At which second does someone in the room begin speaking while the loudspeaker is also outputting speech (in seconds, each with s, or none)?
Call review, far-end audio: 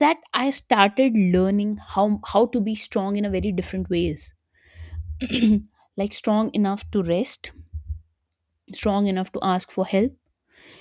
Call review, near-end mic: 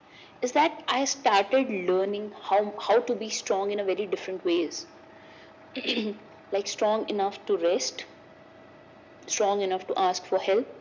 none